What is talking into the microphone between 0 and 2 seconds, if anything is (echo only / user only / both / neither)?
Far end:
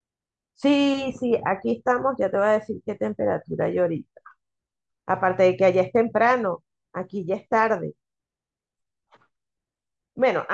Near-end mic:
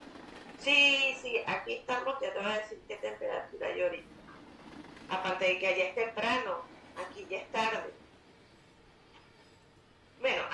echo only